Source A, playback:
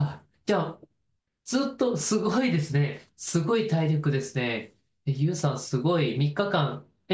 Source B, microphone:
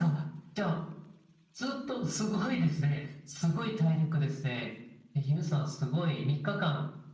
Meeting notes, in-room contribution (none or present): none